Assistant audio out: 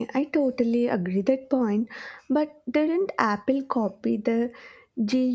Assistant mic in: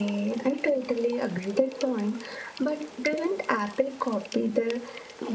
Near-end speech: none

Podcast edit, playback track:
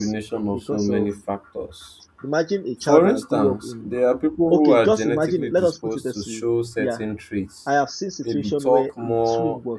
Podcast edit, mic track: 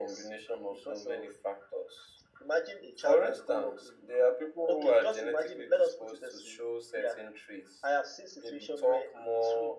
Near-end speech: none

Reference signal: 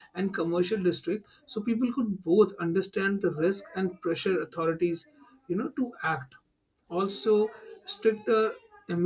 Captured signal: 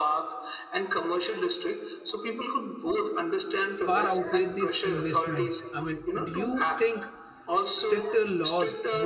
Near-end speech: present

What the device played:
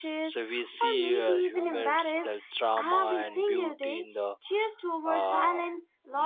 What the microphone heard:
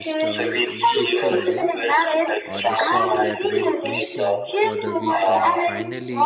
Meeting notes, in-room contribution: present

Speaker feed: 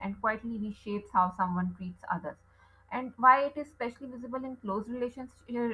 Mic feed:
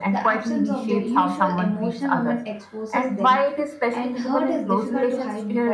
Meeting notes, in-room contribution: present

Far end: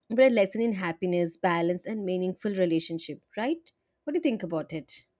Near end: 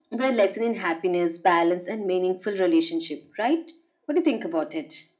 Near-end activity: none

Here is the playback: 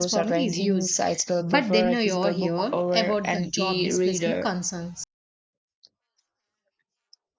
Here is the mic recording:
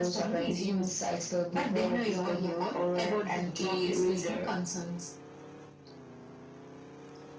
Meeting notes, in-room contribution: none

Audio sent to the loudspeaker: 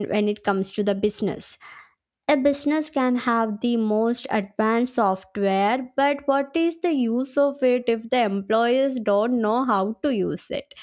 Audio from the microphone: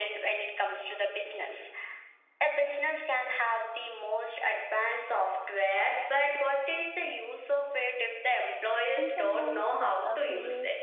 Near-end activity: present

